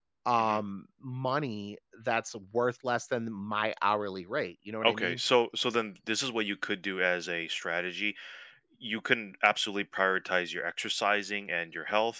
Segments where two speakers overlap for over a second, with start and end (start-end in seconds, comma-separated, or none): none